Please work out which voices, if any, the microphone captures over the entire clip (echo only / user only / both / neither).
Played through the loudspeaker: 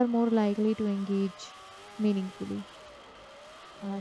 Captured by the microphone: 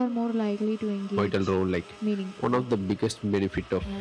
both